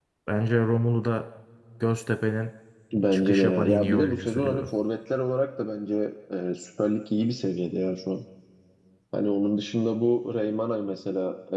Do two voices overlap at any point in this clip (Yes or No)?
Yes